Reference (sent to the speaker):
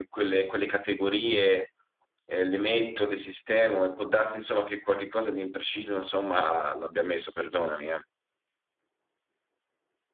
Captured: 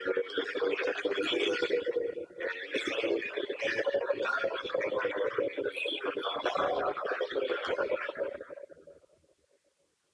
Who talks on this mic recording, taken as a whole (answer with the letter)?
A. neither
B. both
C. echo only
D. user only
C